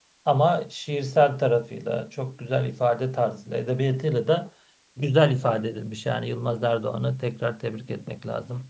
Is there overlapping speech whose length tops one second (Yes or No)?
No